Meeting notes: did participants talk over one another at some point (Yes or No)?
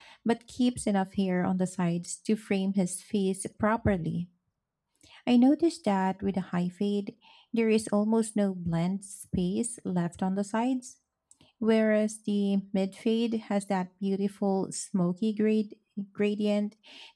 No